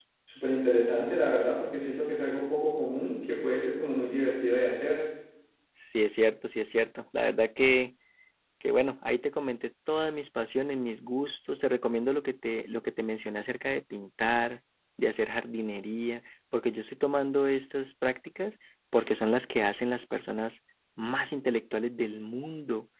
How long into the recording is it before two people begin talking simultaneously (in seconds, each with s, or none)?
none